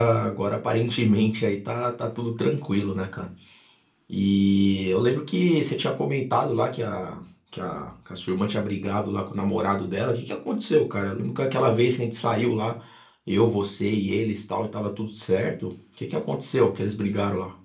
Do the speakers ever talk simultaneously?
No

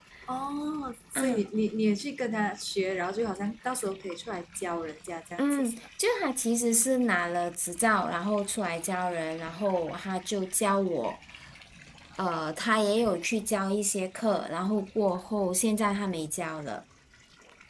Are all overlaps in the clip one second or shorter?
Yes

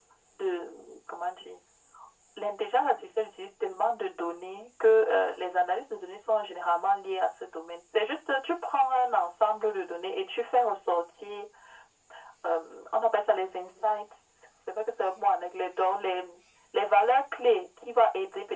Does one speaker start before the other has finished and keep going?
No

